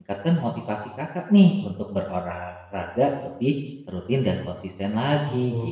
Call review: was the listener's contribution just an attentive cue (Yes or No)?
No